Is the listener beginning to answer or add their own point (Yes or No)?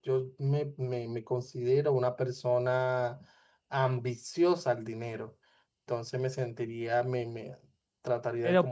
Yes